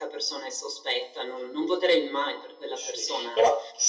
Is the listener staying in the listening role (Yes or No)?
No